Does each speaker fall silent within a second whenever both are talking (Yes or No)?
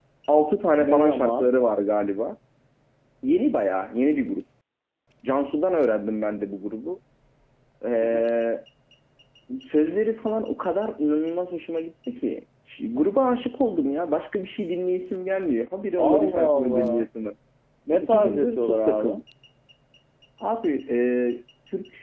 No